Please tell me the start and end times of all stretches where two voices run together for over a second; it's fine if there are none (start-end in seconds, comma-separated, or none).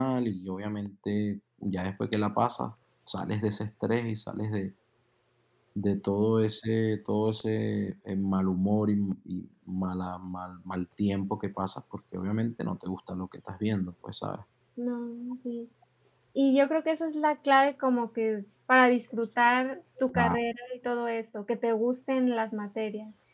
none